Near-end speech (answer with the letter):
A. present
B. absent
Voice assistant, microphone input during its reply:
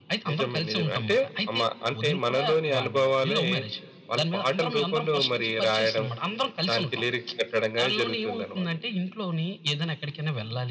B